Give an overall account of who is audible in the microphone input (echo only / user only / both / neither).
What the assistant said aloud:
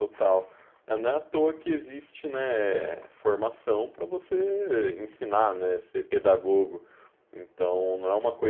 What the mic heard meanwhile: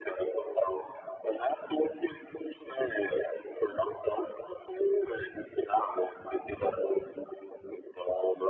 echo only